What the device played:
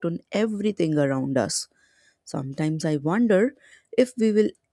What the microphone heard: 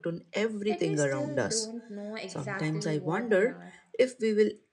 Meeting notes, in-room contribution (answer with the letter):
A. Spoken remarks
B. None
A